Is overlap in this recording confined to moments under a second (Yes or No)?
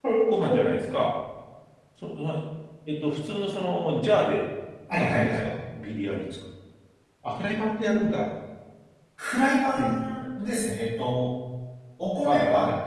Yes